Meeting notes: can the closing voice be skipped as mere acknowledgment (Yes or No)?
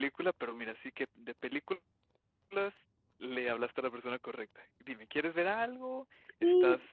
No